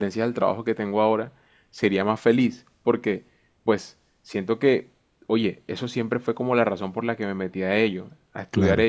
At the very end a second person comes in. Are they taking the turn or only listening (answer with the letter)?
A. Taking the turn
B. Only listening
B